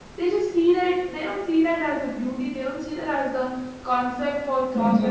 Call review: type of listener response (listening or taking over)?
listening